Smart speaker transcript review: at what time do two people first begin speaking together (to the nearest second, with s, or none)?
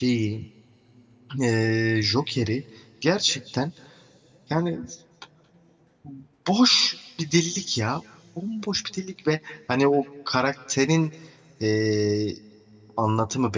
none